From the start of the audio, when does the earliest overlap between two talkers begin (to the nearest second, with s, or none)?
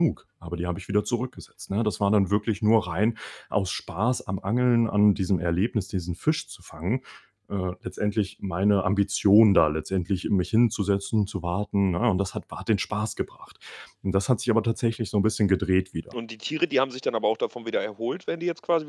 none